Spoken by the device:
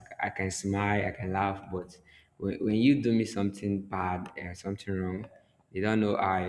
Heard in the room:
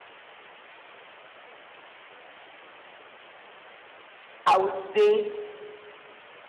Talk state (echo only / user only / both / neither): user only